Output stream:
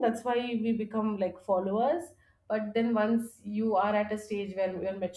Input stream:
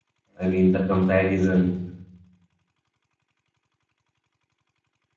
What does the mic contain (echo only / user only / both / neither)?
user only